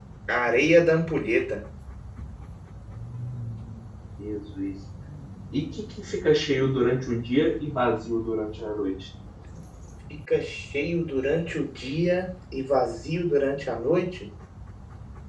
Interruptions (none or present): none